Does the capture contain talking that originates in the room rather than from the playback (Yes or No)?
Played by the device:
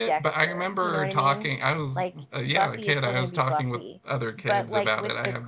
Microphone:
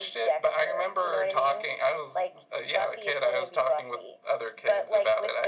No